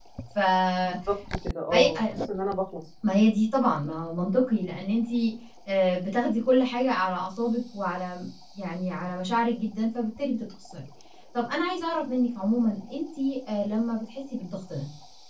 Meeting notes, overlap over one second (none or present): none